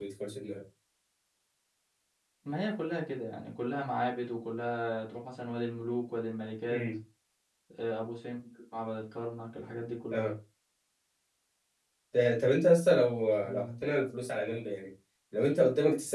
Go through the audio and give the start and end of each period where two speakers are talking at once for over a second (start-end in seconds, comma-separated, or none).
none